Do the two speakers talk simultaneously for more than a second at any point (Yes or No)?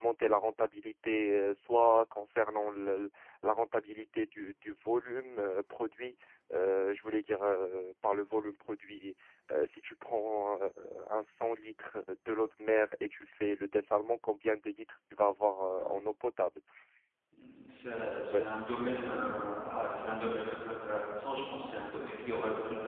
No